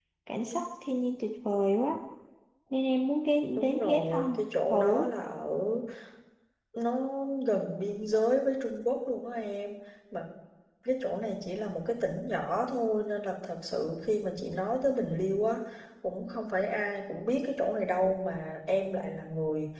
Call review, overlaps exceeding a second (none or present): present